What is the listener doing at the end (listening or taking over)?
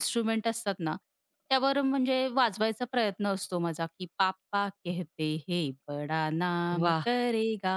listening